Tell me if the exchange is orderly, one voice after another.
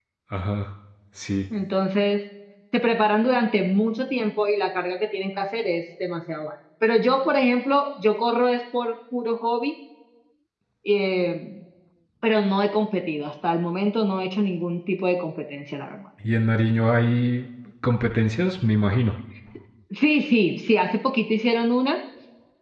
Yes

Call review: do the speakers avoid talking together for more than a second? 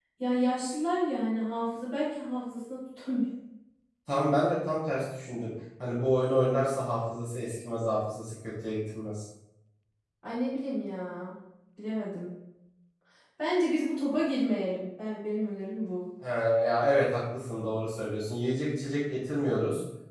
Yes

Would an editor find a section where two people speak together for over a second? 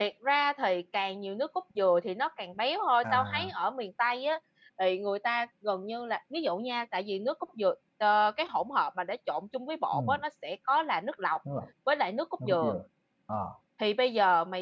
No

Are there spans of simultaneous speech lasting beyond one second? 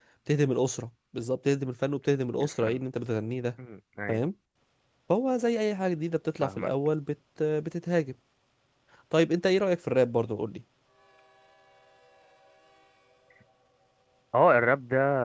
No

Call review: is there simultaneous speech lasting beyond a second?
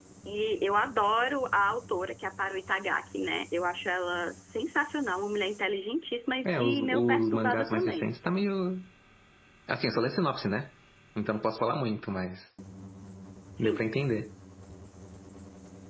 Yes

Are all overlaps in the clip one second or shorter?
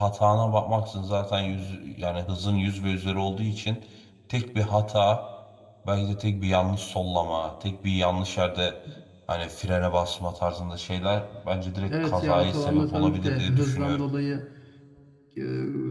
No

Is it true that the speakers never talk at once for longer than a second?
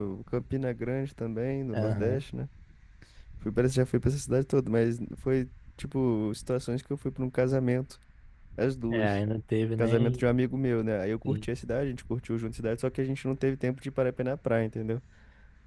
Yes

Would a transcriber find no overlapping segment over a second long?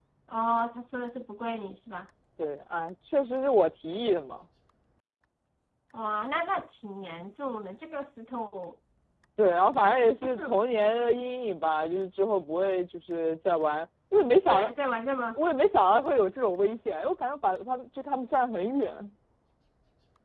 Yes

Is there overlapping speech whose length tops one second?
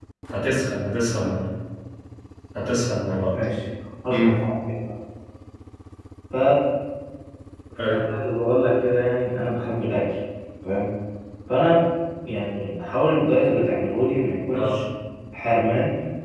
No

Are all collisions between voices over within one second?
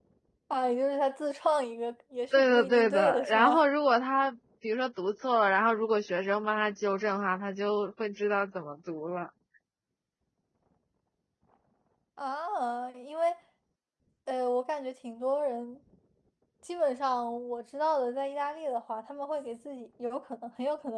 No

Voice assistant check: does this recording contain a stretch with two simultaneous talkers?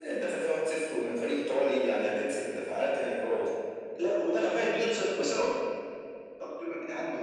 No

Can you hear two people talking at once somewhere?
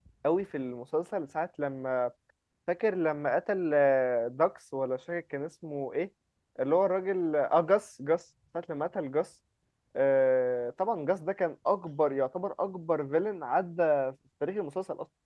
No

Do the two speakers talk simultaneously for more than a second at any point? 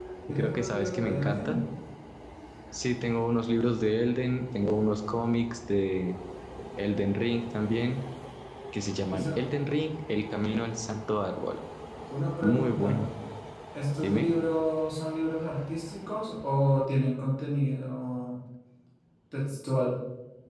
Yes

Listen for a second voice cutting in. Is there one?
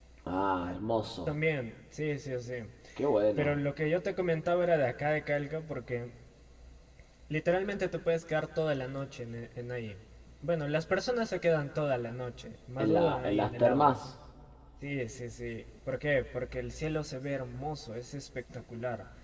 Yes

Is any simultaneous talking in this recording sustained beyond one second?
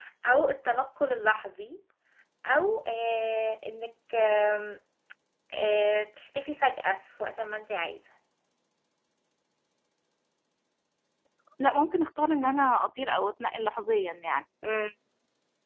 No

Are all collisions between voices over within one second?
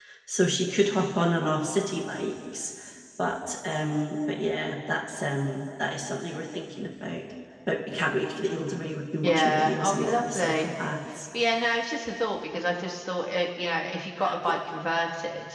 No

